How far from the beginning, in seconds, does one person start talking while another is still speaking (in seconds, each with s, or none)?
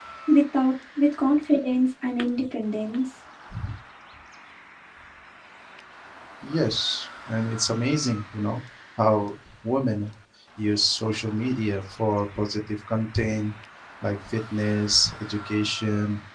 none